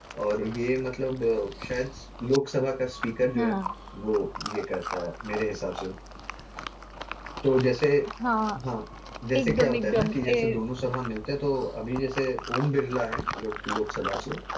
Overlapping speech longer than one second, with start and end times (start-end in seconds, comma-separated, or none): 9.4-10.6